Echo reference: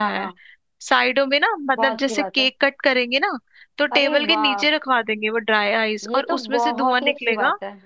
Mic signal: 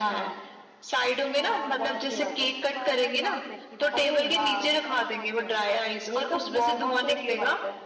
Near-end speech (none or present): present